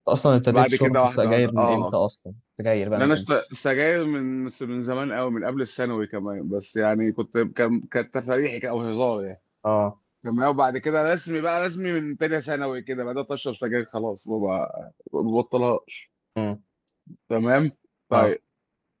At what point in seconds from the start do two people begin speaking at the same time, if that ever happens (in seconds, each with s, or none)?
0.5 s